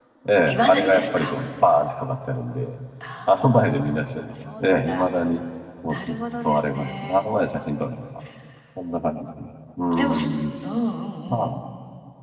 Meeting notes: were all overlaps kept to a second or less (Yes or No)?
No